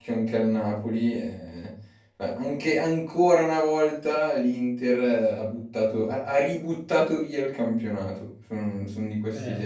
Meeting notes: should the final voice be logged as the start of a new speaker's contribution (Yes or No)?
No